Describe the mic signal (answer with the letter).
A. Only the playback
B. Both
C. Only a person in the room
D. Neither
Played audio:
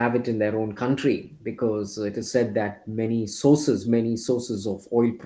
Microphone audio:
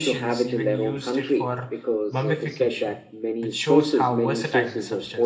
B